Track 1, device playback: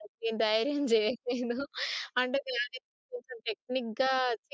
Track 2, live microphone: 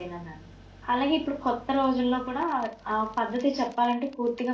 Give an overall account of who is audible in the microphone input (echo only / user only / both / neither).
user only